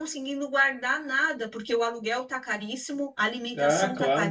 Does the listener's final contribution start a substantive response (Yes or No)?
Yes